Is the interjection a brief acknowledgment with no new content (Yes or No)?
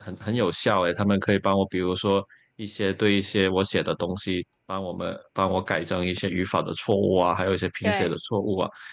Yes